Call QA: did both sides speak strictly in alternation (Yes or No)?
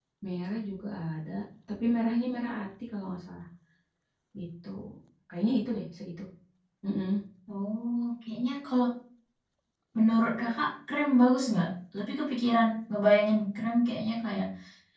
Yes